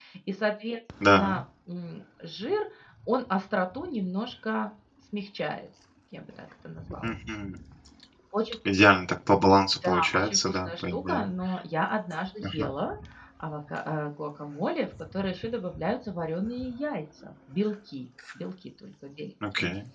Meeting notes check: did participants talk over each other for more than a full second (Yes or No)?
Yes